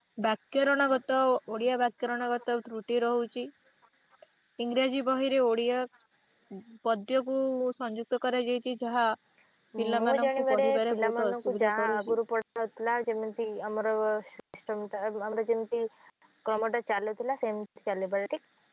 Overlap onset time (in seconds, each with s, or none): 10.0 s